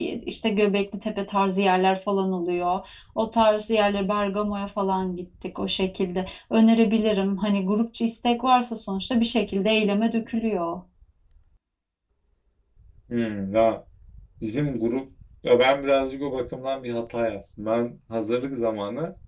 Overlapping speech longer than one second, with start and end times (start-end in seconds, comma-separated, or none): none